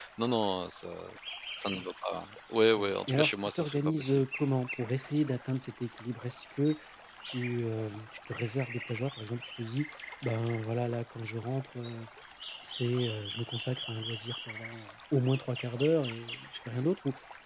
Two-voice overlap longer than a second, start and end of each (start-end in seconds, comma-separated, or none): 2.8-4.2